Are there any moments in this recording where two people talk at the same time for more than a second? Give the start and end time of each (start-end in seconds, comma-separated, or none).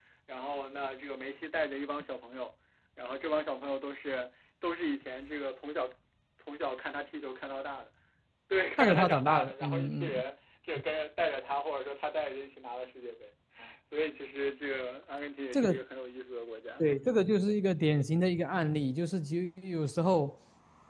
8.8-10.2